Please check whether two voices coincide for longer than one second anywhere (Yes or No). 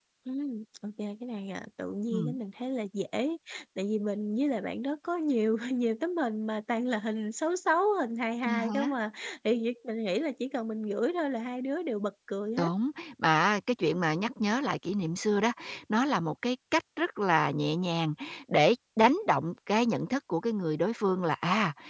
No